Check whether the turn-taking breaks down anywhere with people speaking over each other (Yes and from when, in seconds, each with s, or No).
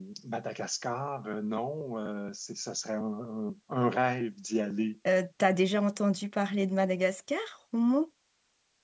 No